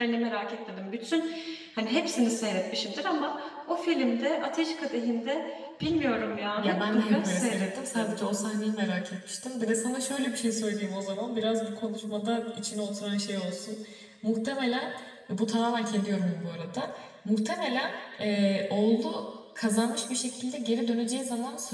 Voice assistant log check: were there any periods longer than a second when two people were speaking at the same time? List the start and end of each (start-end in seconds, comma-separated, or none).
6.6-8.2